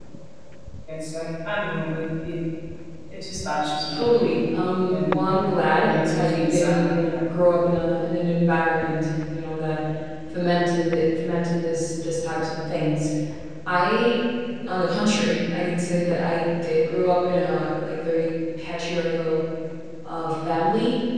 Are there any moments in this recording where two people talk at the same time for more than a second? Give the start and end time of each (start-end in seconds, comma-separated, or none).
5.8-7.2